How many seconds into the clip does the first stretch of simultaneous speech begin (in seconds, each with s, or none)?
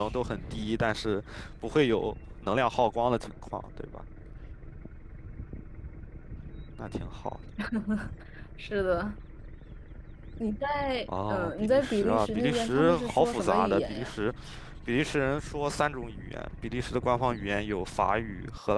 11.1 s